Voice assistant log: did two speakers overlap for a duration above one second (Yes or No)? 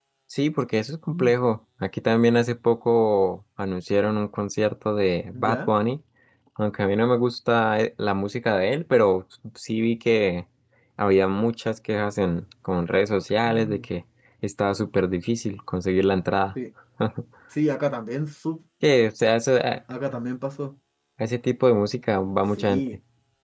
No